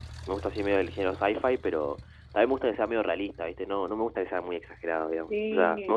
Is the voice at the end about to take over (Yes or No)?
No